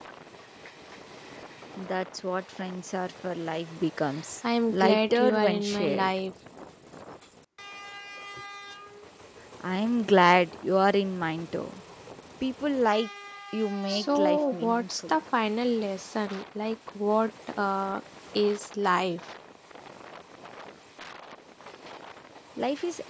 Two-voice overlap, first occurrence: 4.7 s

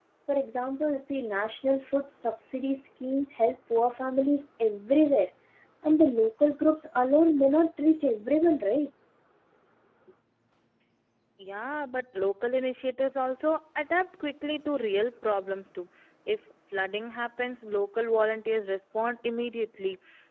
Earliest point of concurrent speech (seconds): none

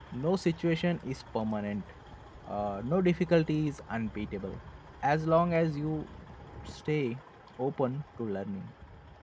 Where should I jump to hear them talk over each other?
none

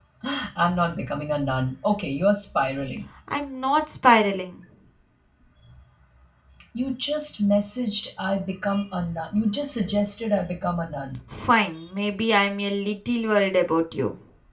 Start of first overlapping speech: none

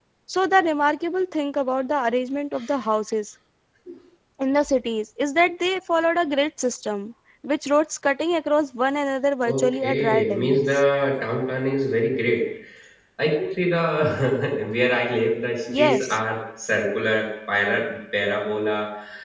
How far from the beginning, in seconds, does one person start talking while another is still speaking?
9.4 s

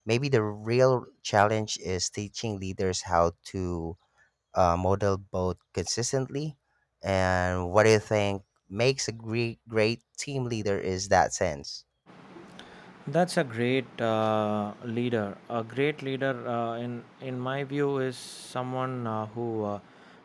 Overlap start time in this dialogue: none

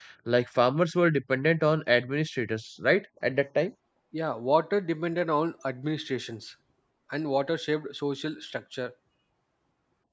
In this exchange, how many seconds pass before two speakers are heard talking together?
none

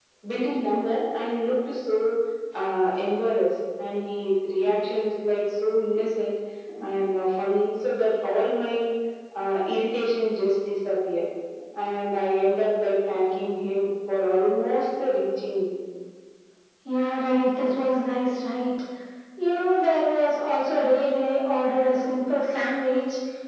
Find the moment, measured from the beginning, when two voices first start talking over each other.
none

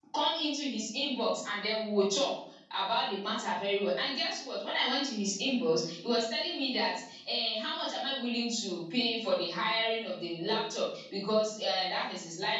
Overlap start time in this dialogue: none

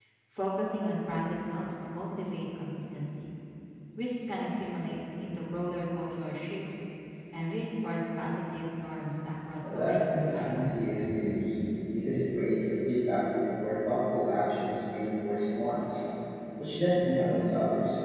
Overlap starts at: 9.6 s

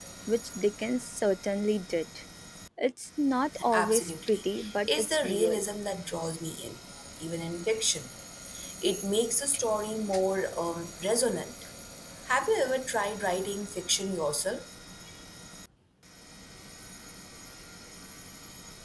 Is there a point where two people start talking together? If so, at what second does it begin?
3.7 s

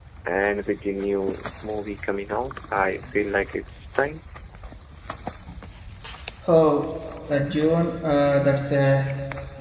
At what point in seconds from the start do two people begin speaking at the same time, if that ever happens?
none

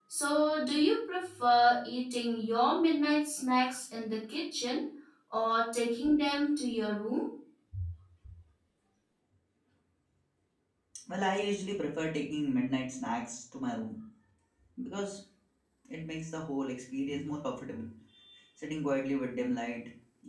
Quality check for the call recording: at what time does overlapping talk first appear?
none

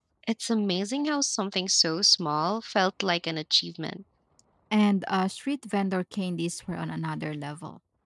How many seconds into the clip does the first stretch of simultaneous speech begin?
none

